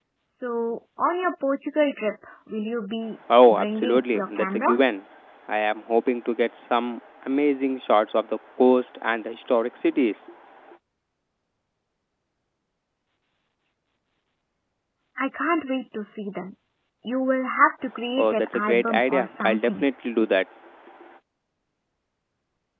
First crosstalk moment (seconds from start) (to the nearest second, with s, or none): 3 s